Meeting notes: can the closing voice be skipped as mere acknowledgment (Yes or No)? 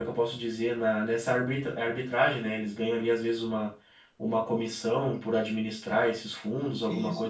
No